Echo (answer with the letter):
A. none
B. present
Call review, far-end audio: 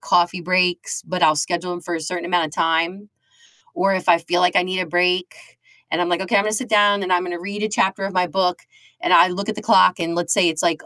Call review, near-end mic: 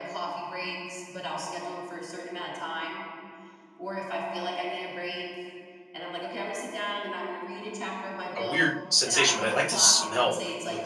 B